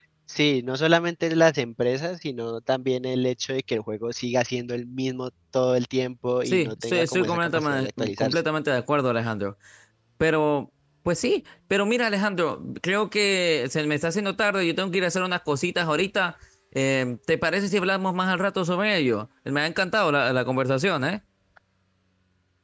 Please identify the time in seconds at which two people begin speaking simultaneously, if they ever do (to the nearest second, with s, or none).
6 s